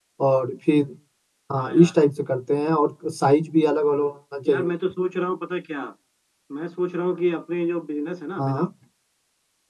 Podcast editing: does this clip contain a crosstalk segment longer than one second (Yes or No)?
No